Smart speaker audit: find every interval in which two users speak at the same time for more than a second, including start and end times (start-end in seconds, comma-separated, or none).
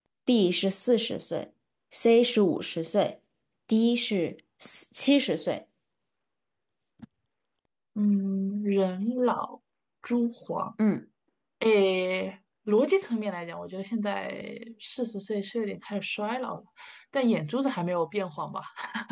none